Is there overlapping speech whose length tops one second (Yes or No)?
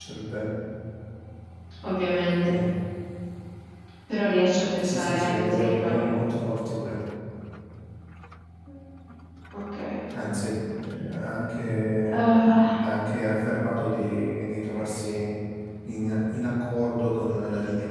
Yes